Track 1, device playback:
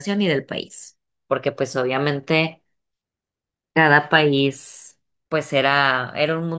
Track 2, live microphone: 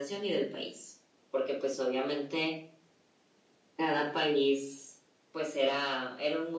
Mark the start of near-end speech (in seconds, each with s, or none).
none